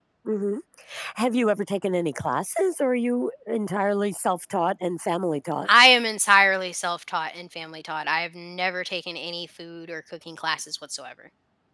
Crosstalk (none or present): none